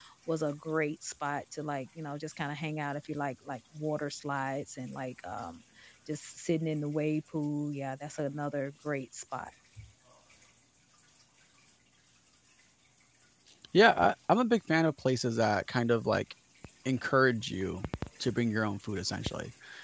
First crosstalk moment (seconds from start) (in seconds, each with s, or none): none